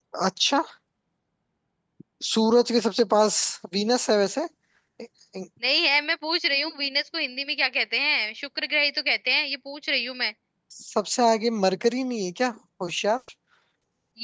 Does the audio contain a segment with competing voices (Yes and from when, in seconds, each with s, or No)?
No